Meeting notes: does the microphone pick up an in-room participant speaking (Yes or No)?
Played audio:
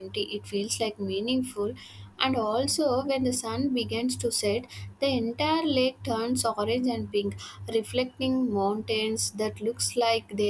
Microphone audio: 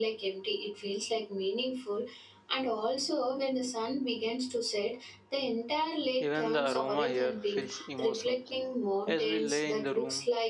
Yes